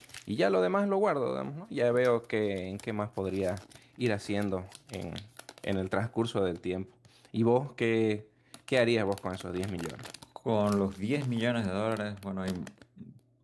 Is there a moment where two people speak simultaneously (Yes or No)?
No